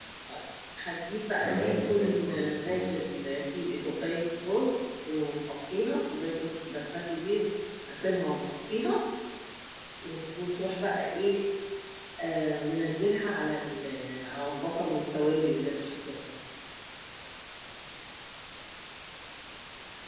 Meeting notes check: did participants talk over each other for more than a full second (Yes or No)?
Yes